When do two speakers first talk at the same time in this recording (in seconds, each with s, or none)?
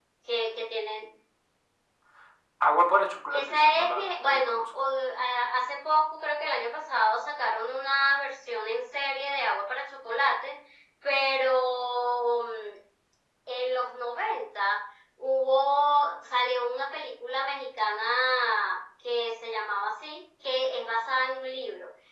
3.3 s